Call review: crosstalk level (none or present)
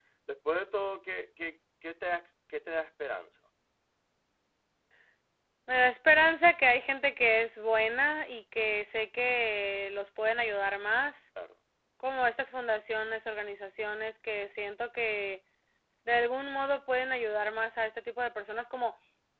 none